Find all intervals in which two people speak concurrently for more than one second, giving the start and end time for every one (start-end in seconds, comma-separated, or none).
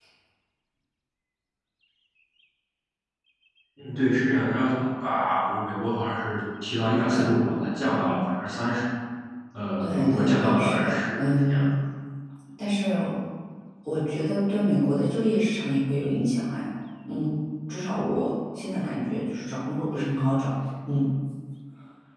9.8-11.6